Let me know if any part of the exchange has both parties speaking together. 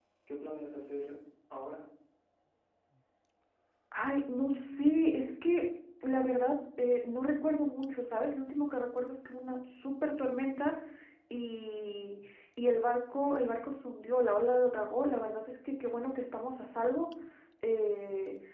No

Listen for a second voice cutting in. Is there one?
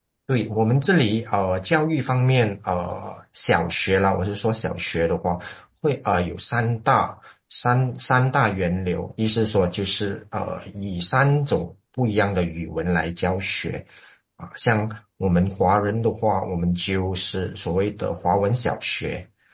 No

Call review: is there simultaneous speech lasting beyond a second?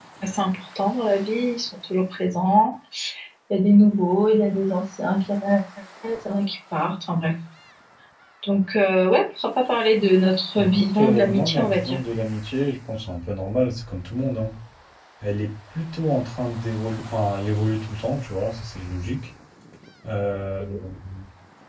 Yes, from 10.6 s

